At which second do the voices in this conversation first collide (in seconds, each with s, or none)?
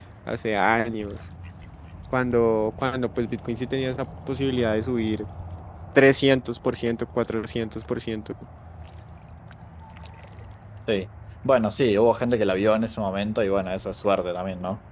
none